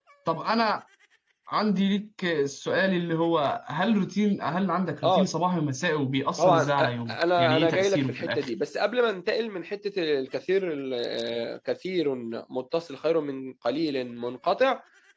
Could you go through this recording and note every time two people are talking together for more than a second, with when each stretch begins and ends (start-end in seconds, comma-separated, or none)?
6.4-8.5